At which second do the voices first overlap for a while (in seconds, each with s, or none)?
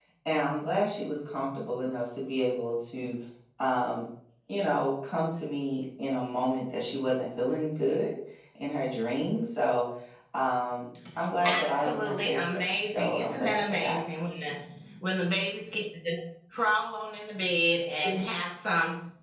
11.4 s